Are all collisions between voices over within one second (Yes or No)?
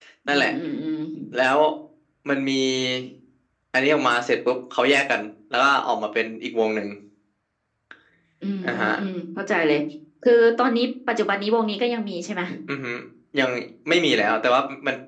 Yes